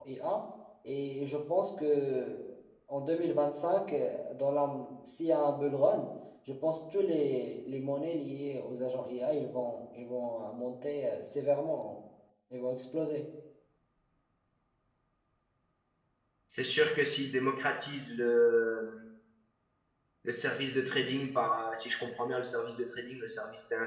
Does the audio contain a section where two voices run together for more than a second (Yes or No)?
No